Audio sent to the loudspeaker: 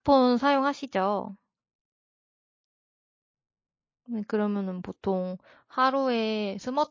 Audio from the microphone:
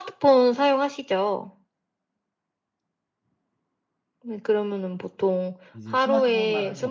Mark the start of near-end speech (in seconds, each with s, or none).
5.7 s